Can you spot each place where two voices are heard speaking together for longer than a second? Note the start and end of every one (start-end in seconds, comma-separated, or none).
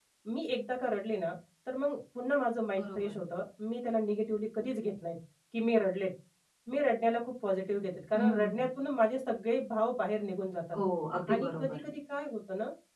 none